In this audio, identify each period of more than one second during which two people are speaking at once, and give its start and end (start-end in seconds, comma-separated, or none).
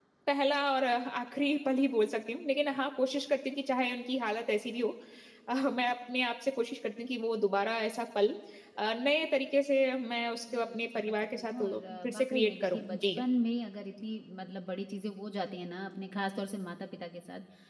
10.5-13.2